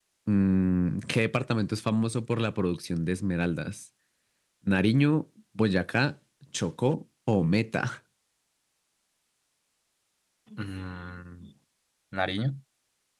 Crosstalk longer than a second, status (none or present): none